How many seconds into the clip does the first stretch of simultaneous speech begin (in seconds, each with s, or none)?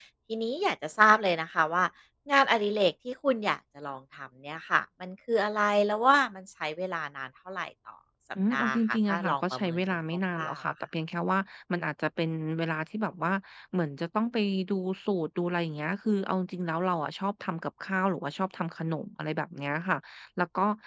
8.4 s